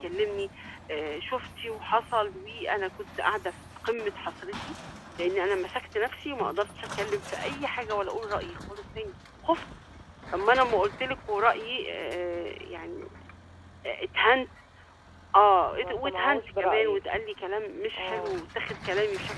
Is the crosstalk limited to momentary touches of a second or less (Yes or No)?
No